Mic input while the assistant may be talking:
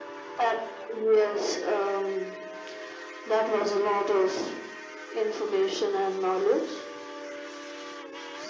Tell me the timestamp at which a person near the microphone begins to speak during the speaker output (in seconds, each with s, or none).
none